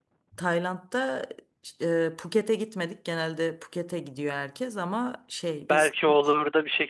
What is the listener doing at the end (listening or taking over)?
taking over